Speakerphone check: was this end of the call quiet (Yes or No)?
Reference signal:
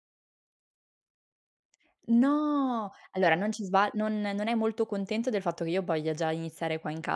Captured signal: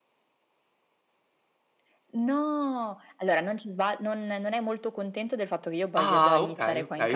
No